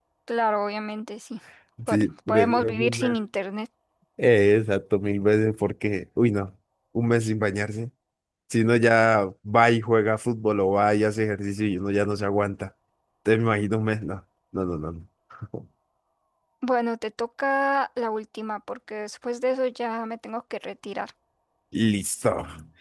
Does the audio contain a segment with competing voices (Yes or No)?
Yes